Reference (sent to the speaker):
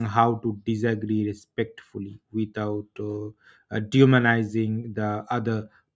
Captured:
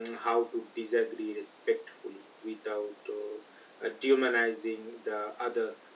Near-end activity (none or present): none